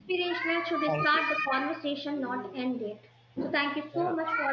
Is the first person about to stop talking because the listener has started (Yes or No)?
No